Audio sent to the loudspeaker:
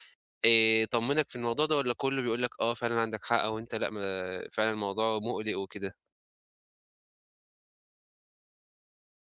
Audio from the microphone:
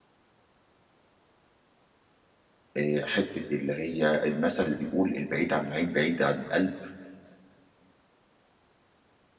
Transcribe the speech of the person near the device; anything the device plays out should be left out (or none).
آآ حتّة اللي هي المثل اللي بيقول: "البعيد عن العين بعيد عن القلب."